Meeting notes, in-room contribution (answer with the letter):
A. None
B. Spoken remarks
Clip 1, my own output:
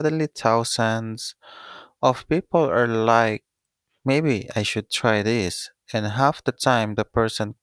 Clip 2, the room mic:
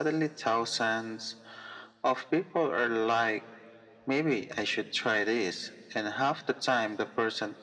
A